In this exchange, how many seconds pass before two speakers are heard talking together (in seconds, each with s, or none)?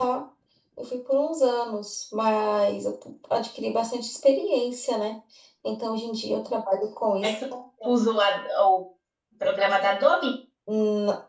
none